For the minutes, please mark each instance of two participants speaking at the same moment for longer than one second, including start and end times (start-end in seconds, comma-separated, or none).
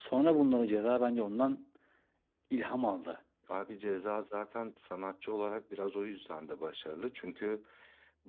none